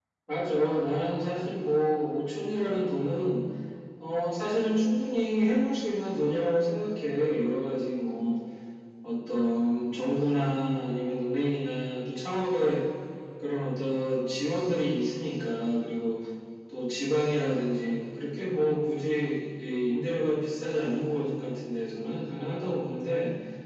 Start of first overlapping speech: none

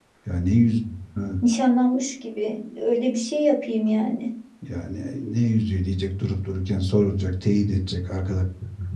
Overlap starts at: none

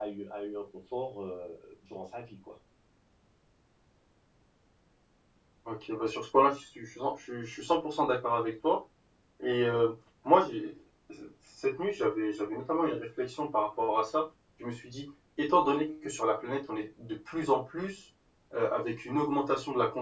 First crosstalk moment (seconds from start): none

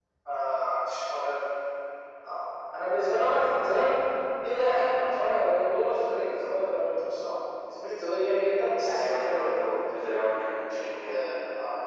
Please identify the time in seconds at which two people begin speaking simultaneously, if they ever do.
8.9 s

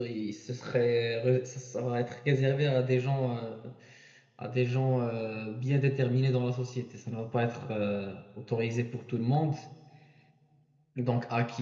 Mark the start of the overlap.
none

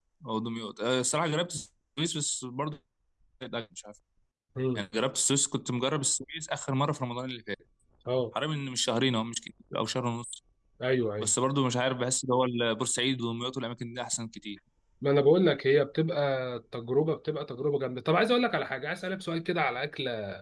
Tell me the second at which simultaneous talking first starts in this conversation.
none

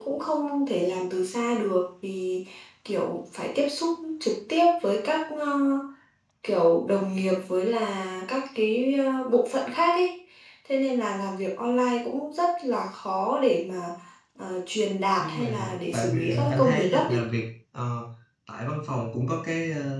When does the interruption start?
15.2 s

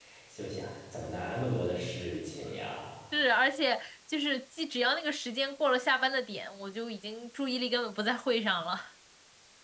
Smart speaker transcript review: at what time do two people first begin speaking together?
none

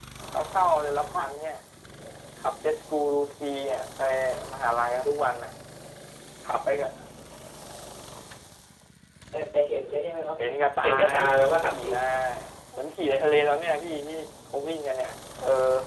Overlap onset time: 10.4 s

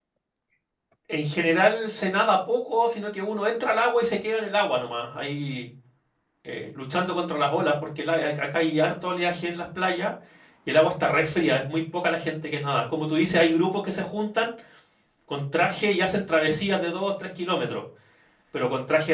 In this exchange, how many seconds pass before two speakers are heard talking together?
none

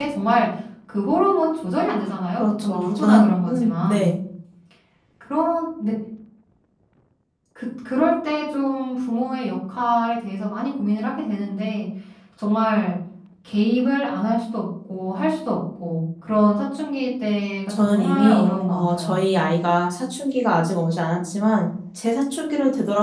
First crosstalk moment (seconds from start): 2.4 s

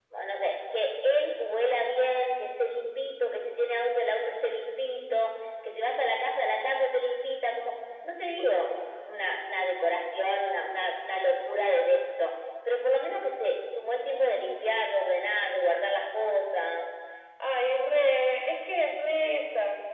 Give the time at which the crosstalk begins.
none

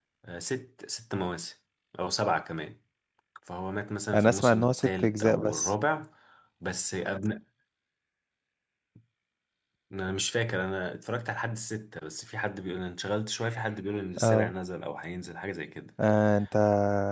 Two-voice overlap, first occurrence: 4.1 s

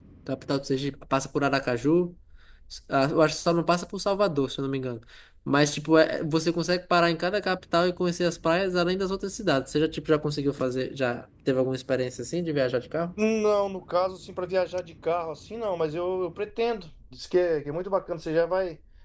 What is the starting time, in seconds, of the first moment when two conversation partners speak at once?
none

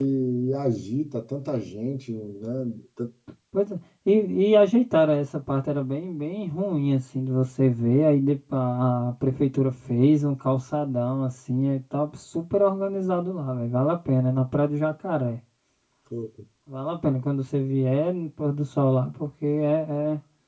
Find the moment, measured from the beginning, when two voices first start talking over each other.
none

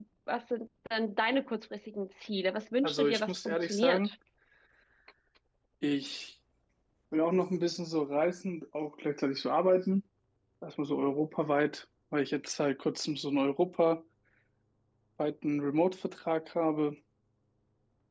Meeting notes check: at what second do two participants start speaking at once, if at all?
2.8 s

